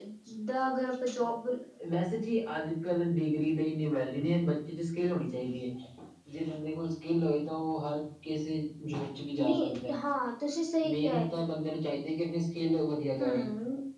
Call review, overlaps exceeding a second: none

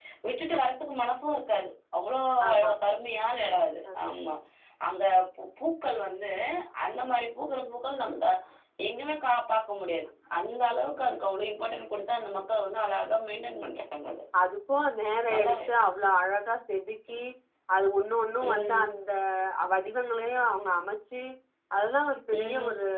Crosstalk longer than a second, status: none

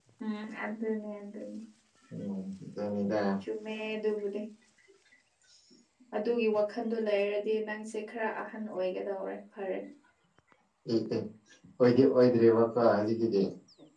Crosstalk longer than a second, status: none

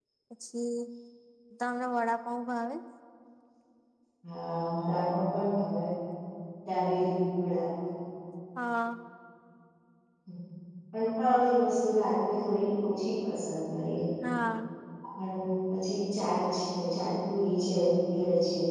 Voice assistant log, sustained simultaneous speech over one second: none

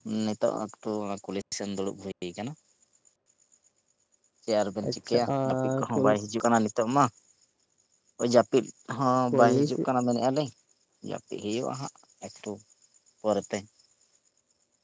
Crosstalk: present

